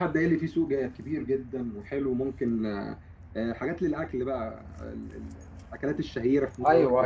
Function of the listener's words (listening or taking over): taking over